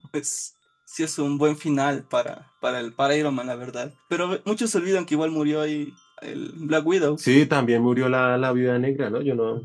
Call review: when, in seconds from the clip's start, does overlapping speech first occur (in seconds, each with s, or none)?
none